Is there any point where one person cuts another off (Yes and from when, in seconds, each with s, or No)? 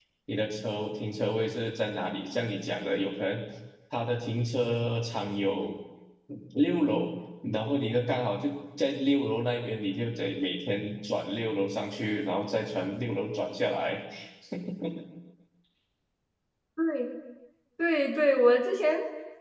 No